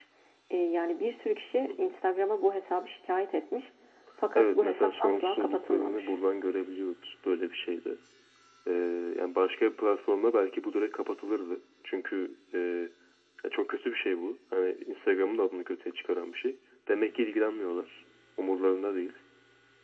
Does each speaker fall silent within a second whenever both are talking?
No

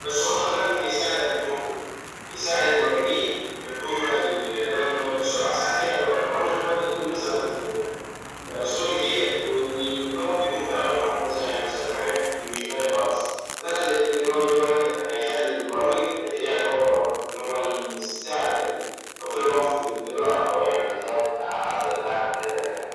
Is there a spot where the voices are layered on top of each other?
No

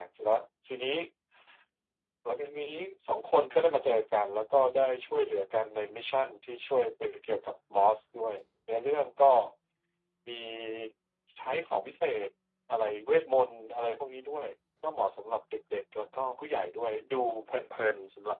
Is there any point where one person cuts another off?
No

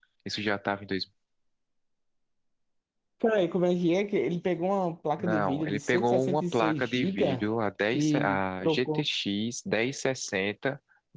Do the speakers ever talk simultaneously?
Yes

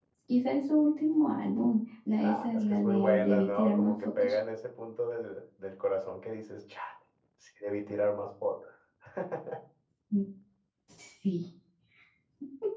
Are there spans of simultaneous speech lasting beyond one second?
Yes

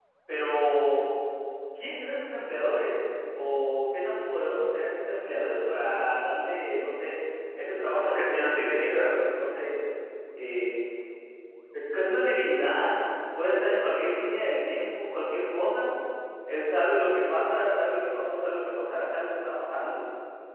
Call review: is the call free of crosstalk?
No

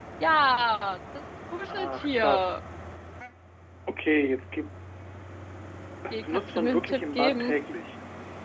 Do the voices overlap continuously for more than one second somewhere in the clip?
Yes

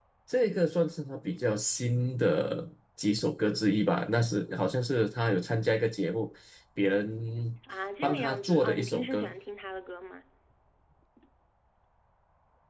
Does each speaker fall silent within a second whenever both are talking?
No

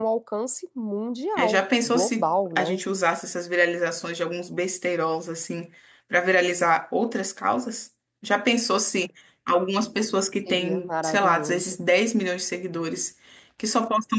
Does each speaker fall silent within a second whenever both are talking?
No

